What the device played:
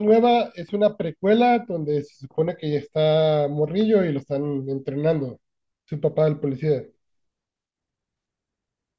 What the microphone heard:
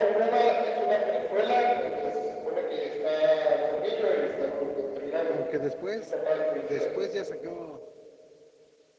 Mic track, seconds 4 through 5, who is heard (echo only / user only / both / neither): echo only